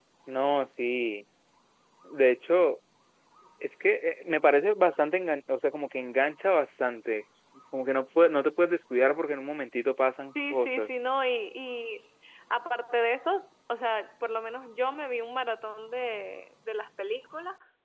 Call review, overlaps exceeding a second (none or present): none